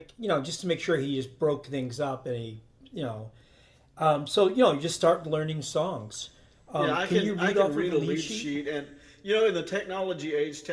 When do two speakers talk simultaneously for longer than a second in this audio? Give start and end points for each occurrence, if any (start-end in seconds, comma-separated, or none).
6.8-8.5